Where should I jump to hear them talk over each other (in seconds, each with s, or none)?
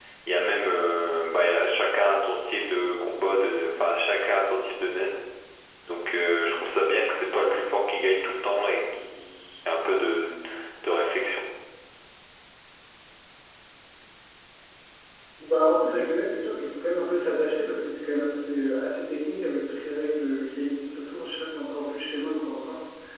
none